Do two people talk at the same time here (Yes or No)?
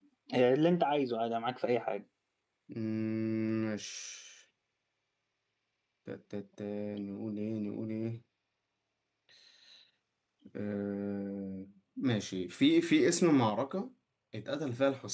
No